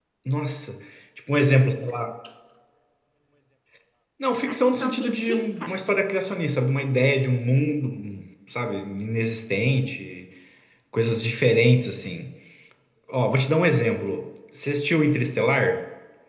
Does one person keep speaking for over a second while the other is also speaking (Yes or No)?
Yes